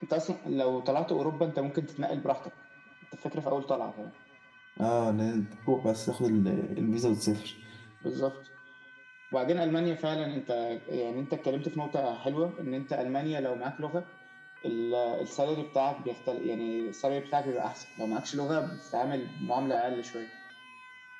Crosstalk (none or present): none